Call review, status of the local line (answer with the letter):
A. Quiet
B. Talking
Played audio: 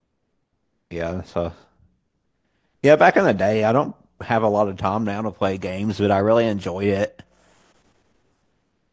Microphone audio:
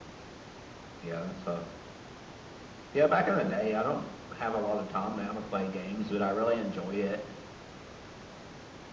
A